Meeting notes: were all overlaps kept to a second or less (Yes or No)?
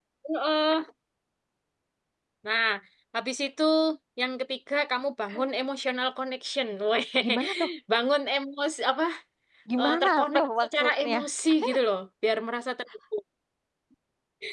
No